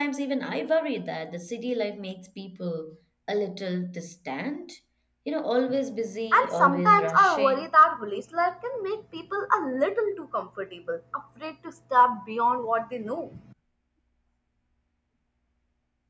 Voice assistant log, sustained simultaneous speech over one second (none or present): present